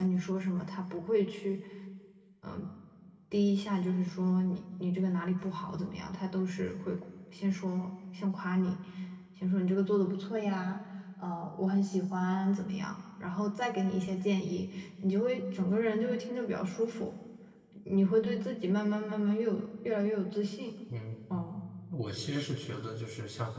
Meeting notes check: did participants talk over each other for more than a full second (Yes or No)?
No